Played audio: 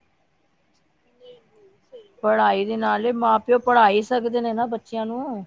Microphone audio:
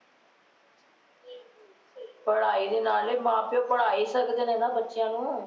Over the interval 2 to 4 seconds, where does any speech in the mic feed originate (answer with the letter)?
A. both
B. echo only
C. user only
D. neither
B